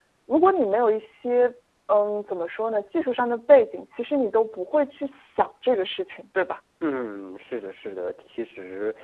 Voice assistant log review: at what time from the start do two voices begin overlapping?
none

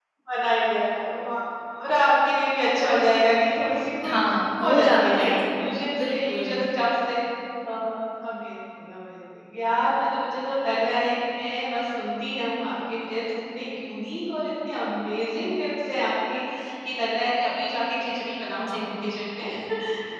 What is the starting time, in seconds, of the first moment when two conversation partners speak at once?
4 s

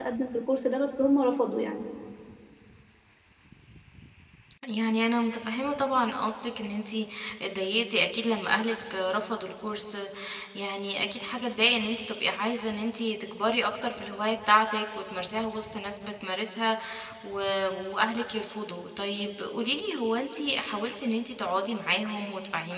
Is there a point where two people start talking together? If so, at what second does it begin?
none

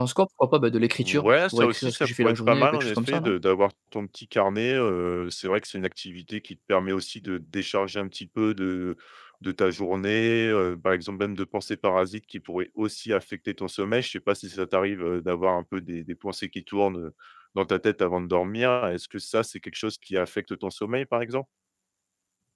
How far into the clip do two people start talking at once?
1 s

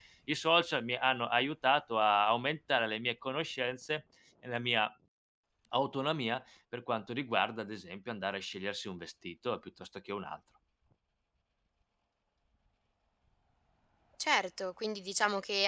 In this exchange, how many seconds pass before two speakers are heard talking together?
none

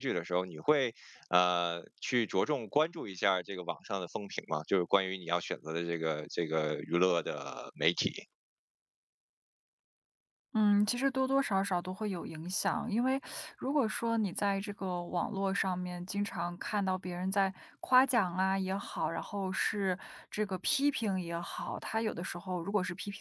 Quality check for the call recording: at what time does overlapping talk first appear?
none

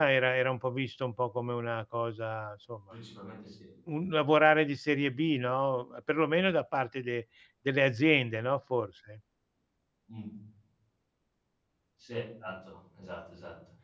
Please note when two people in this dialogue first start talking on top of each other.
none

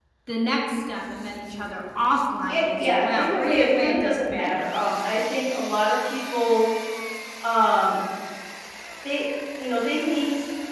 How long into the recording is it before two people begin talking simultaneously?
2 s

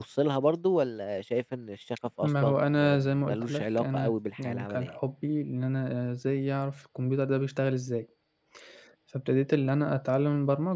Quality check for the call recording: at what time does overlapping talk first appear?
2 s

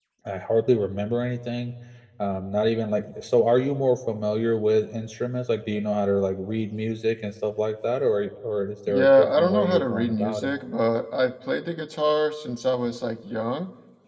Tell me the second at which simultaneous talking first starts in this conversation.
9 s

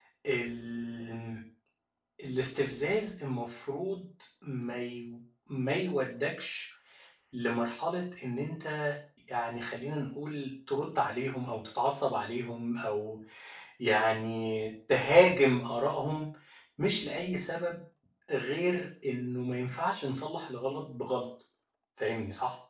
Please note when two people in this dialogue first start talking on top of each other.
none

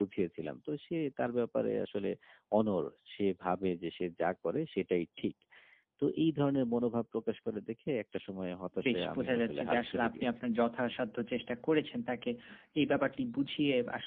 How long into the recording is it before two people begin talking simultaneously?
9 s

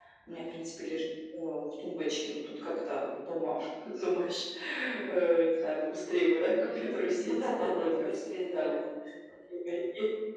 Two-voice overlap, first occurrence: 6 s

